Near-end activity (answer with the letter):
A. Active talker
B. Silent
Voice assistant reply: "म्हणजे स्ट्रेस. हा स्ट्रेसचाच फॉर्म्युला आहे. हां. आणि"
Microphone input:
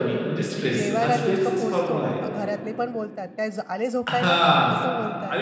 A